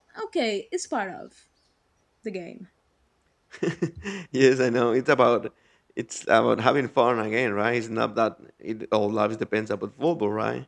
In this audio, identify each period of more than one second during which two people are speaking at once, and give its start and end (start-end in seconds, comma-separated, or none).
none